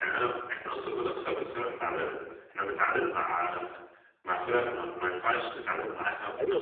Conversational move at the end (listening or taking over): taking over